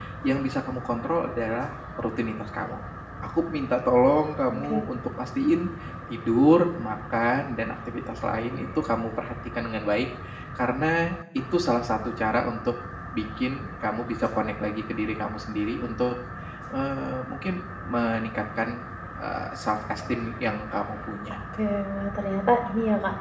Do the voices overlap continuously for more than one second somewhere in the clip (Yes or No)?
No